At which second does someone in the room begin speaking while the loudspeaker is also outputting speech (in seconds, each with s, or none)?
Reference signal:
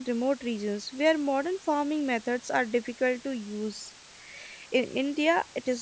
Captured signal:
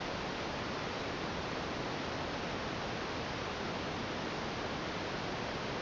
none